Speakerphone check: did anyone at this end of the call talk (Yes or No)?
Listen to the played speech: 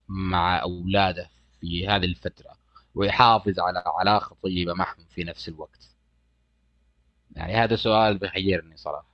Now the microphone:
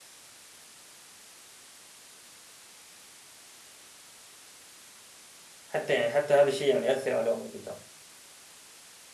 Yes